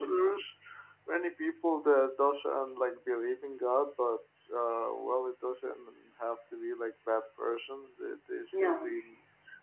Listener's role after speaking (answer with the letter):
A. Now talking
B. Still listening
B